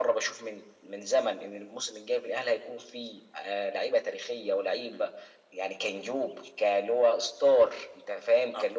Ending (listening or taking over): listening